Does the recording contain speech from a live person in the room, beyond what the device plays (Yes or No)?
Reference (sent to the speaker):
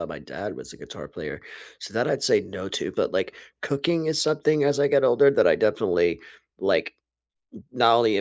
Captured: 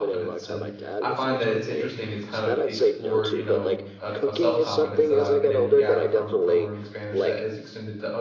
Yes